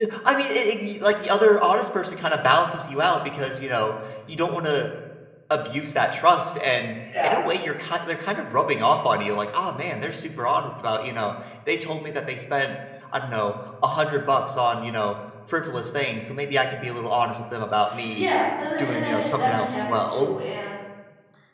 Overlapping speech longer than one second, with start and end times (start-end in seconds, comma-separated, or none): 18.8-20.3